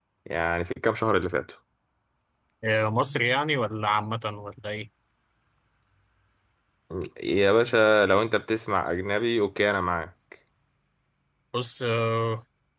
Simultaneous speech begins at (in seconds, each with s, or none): none